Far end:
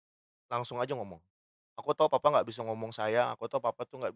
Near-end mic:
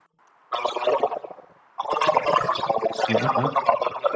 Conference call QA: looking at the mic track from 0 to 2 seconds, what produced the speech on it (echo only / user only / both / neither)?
echo only